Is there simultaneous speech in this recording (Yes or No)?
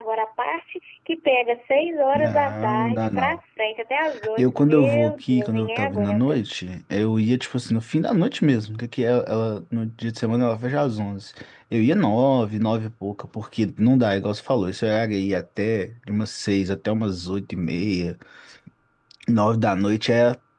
Yes